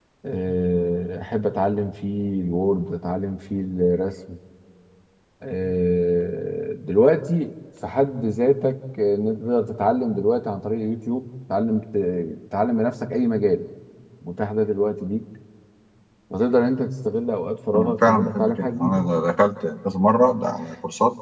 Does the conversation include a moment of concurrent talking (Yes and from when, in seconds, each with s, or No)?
Yes, from 17.7 s